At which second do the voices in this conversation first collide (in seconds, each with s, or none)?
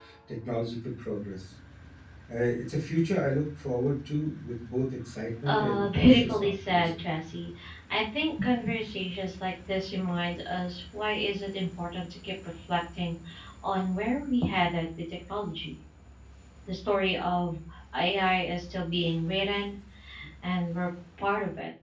5.5 s